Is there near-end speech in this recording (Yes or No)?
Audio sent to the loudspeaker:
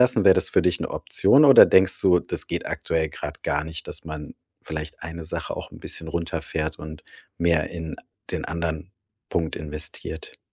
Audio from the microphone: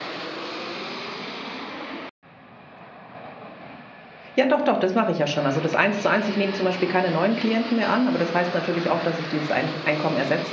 Yes